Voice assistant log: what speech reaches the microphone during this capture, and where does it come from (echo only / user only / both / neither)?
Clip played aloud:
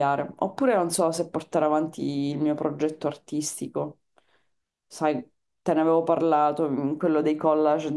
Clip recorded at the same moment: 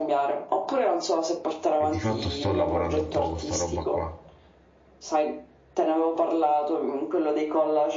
both